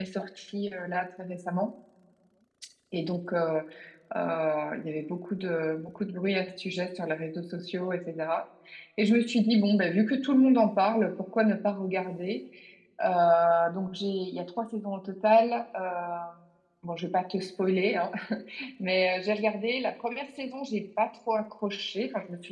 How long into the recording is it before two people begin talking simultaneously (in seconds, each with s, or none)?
none